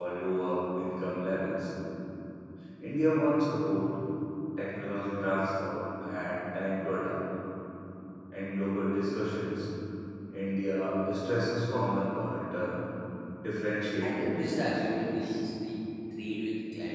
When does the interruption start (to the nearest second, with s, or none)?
14 s